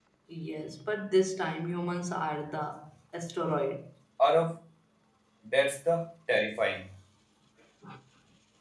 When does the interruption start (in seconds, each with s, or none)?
none